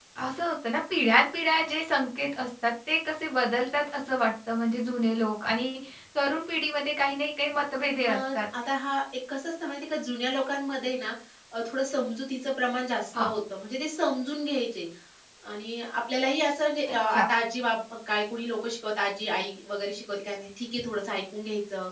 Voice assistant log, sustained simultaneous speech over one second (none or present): none